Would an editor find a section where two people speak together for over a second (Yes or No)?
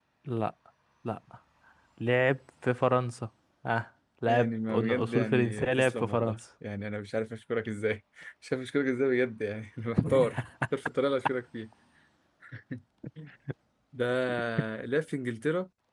Yes